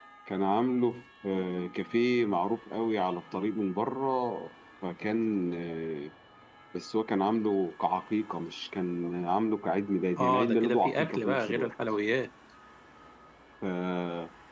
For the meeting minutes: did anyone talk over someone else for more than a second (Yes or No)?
Yes